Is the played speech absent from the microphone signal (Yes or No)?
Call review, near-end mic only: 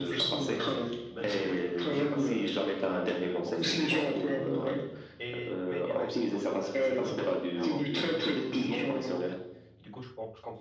No